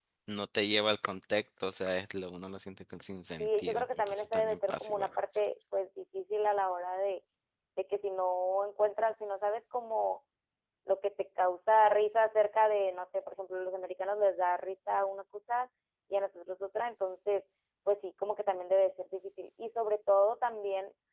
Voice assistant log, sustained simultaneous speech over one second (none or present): present